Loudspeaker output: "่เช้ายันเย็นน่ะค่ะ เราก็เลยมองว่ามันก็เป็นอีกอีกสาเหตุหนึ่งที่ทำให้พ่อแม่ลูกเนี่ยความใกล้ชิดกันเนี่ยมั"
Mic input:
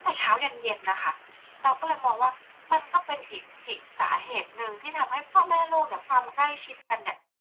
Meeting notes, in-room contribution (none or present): none